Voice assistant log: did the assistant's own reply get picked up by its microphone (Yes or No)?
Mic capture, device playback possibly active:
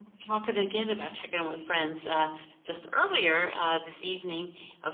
Yes